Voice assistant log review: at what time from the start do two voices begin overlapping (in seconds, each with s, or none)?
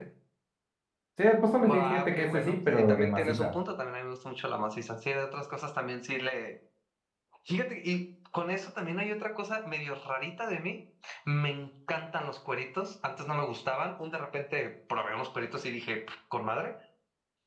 1.6 s